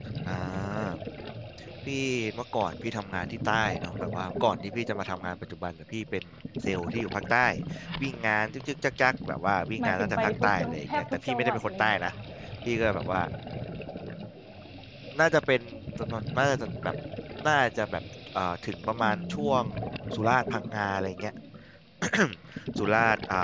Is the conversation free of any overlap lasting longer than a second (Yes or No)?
No